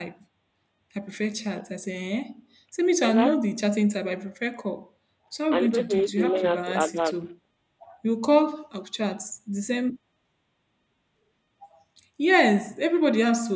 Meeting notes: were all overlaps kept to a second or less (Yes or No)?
No